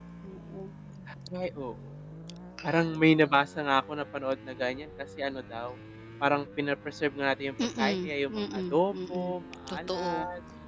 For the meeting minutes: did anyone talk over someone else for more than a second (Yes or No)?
Yes